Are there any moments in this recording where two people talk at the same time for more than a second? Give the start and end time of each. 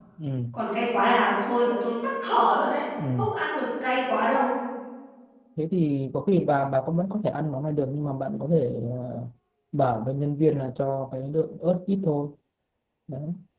none

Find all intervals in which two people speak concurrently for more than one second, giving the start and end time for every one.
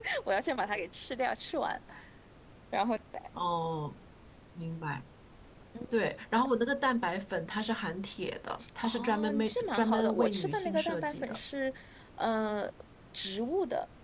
8.8-11.4

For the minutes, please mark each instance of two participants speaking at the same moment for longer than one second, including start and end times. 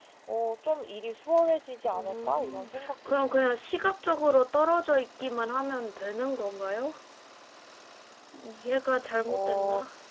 1.9-3.4

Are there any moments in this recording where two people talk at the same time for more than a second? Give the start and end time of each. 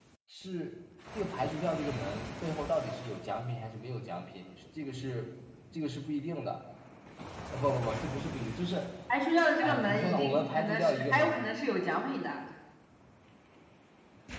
9.6-11.3

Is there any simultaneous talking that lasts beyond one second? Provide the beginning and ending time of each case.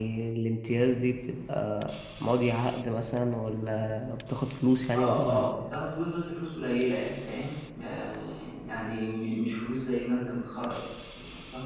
none

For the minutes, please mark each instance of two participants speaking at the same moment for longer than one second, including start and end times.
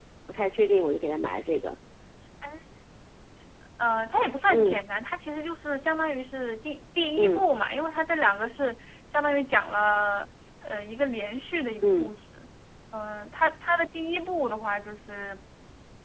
none

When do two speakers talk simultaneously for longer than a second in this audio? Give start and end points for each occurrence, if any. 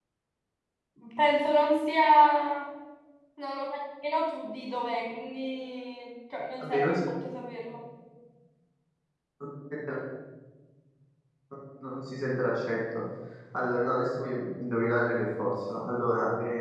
none

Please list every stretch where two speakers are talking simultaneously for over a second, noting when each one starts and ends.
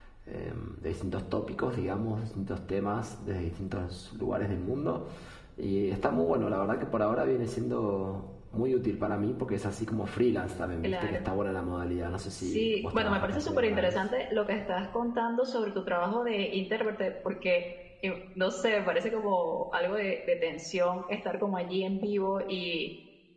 12.4-14.0

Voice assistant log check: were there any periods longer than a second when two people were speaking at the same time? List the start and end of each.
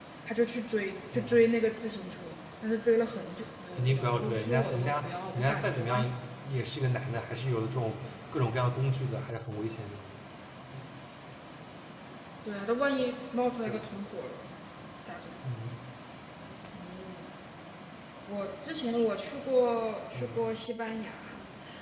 3.8-6.0

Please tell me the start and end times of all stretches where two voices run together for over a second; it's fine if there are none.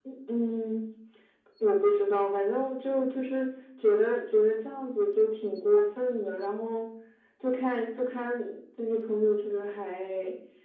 none

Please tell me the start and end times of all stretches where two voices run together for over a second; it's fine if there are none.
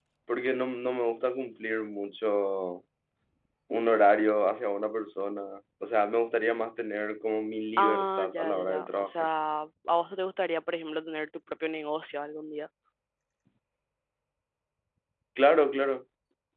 7.8-9.3

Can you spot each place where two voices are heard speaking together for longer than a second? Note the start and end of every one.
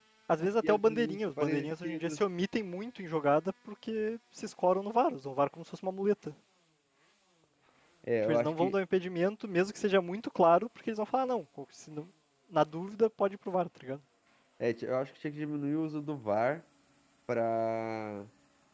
0.6-2.2

